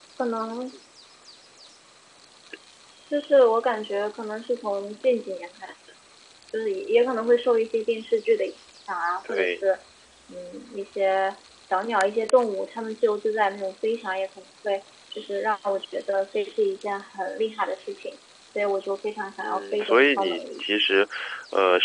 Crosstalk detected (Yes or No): Yes